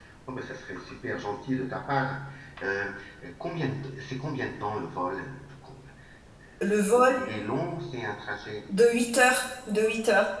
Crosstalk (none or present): none